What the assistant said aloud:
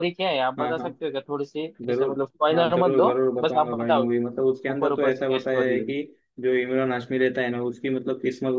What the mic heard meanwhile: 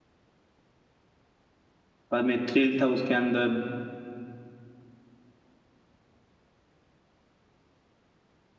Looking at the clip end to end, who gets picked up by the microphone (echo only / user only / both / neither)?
user only